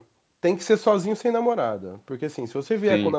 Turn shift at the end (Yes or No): No